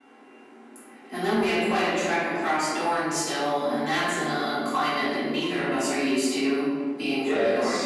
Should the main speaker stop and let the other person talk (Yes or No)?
Yes